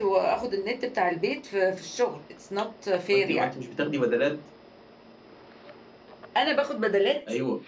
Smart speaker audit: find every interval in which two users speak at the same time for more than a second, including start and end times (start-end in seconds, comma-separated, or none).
none